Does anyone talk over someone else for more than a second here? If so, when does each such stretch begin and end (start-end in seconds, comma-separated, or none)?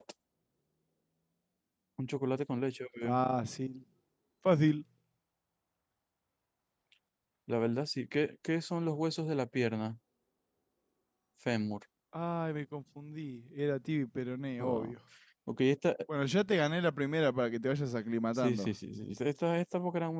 none